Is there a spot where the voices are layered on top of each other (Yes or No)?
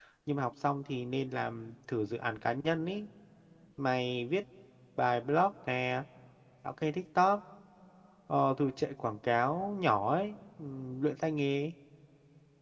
No